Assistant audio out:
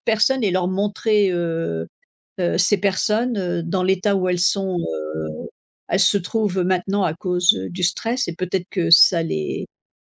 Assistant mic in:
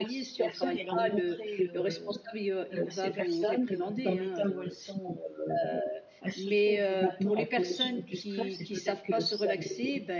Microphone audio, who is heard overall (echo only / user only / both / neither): both